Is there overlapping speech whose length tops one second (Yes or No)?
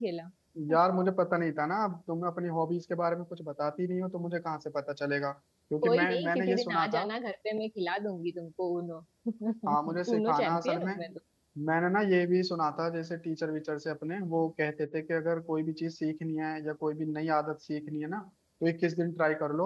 Yes